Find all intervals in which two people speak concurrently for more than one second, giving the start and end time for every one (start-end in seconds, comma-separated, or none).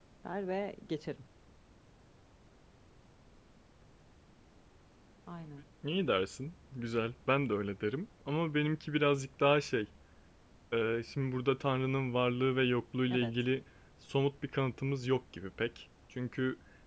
none